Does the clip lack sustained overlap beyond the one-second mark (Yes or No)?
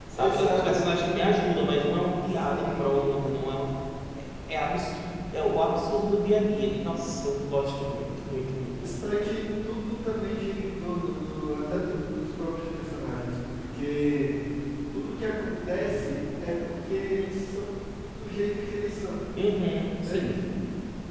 No